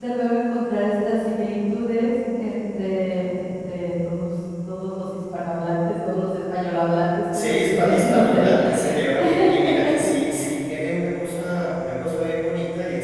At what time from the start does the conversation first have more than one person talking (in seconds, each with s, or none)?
7.3 s